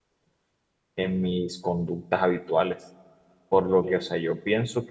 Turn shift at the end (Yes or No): No